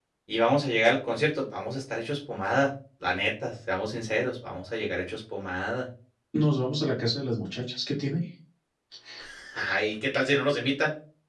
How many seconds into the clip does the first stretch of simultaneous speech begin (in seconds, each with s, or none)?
none